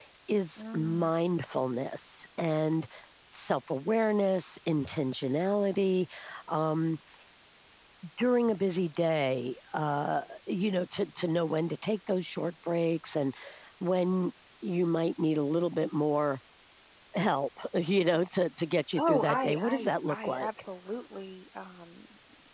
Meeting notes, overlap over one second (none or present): present